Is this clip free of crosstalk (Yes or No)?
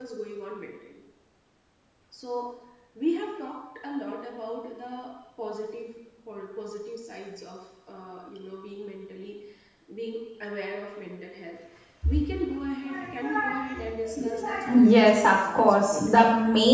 No